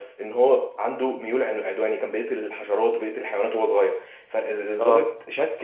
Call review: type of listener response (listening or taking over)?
listening